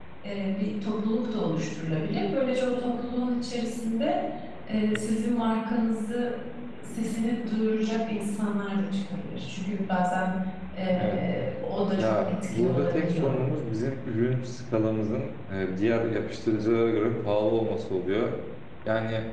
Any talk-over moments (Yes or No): Yes